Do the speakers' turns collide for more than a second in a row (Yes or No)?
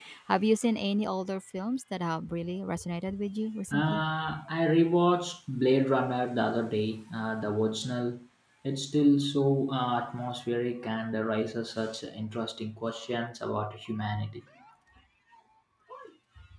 No